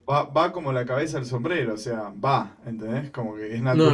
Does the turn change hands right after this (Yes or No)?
Yes